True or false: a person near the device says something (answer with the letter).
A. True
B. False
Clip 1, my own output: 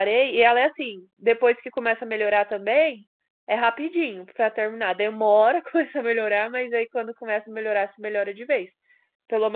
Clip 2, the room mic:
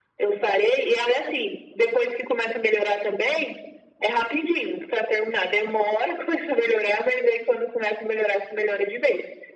B